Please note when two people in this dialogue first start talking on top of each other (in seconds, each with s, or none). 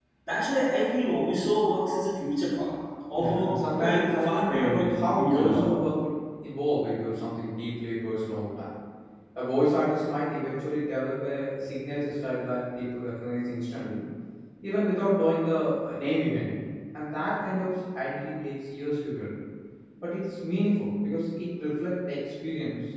3.1 s